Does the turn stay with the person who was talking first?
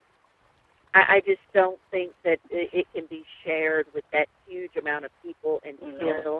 Yes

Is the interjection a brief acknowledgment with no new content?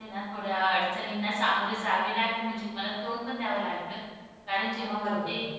Yes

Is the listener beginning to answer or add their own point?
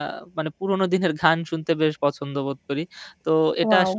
No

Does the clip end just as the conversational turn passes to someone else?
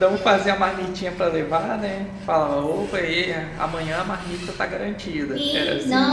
Yes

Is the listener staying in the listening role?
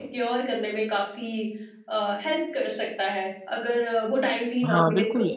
No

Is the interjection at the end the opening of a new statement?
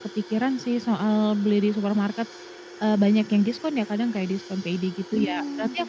No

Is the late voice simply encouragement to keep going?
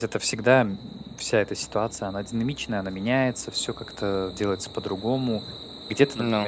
Yes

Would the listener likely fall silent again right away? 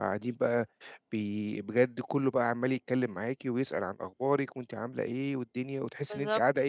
Yes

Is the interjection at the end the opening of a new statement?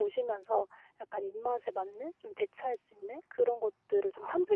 No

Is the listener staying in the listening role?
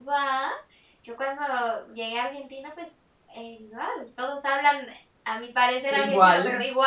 Yes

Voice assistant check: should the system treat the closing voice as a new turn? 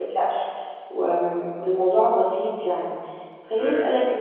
No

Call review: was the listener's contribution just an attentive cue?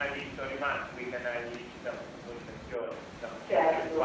No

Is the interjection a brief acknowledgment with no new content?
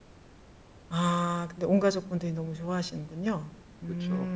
No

